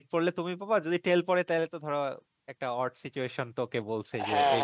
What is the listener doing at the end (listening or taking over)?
taking over